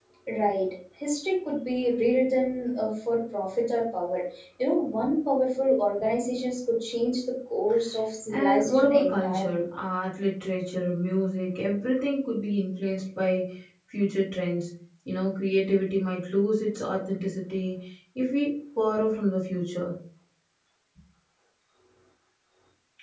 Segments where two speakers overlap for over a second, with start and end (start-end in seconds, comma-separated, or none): 8.3-9.7